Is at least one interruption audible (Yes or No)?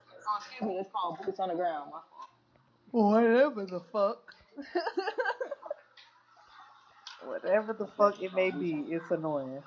Yes